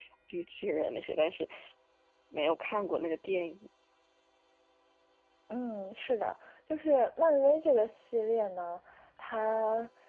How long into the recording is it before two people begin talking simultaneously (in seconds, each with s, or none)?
none